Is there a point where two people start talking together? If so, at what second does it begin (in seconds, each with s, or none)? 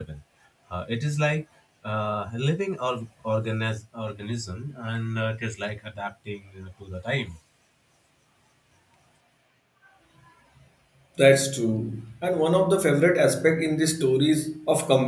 none